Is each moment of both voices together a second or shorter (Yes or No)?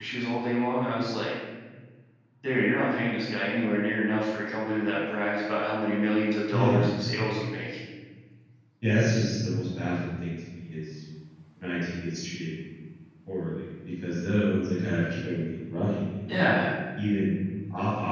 Yes